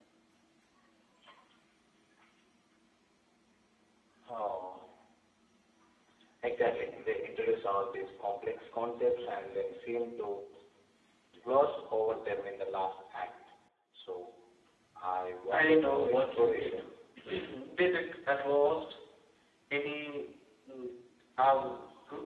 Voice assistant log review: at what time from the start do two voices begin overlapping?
15.5 s

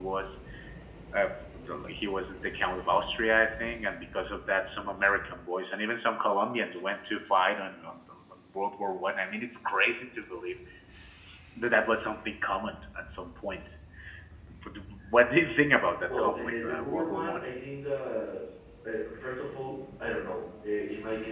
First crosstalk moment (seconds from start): 16.1 s

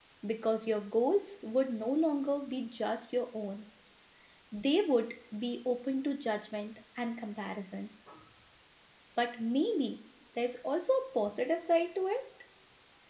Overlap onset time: none

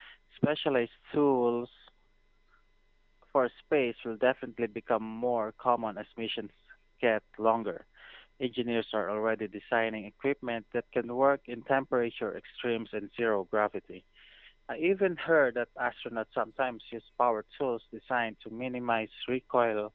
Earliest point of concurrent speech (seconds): none

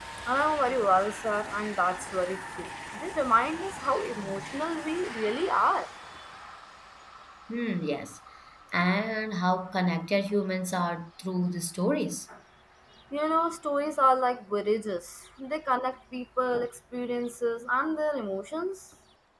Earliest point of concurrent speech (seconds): none

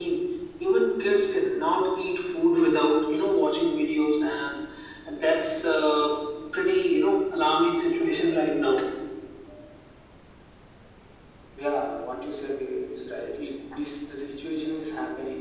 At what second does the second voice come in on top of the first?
none

